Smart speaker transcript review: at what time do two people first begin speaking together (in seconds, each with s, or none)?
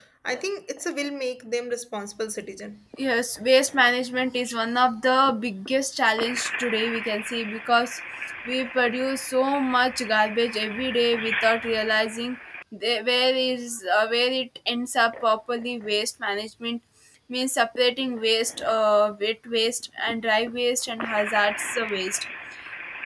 none